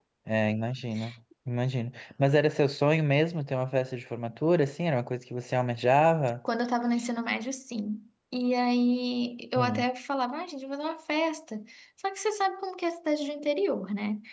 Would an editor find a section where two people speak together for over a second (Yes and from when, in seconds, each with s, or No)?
No